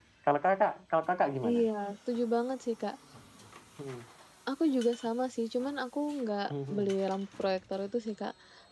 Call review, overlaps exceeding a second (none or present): none